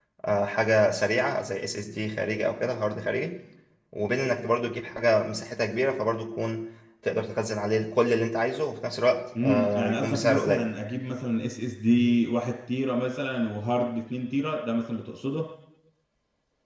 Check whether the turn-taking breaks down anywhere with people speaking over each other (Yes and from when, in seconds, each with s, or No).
Yes, from 9.4 s